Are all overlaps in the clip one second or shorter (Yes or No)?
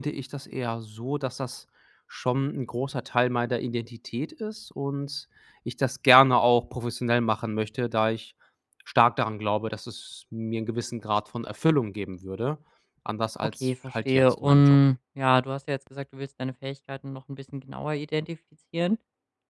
No